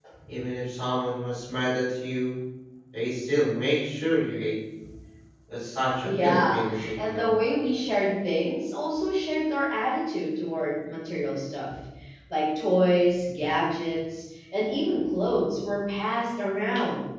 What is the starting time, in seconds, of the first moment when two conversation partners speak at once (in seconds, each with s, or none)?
6.0 s